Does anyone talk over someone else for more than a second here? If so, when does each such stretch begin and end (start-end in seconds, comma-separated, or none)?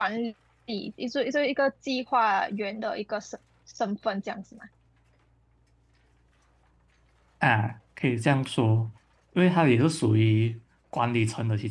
none